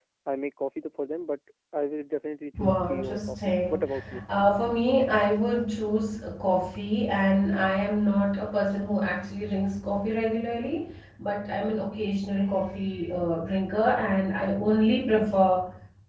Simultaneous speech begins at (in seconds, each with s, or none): 2.5 s